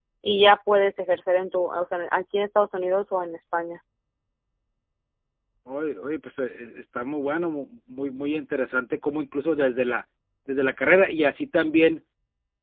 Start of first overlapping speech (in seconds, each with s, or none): none